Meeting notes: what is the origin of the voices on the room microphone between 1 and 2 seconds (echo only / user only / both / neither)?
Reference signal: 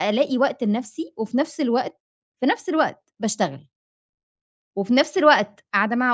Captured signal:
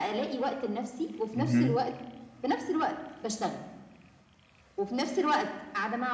both